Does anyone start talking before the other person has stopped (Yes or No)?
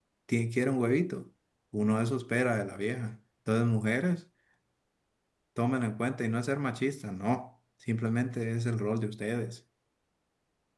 No